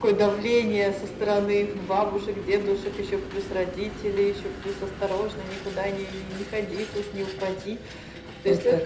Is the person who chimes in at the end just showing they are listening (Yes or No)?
Yes